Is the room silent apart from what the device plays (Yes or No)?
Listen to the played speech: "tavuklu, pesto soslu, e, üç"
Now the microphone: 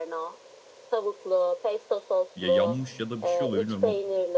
No